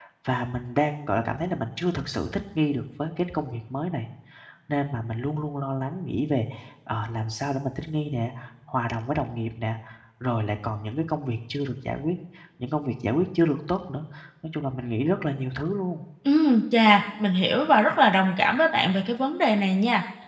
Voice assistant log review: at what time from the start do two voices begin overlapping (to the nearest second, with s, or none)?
none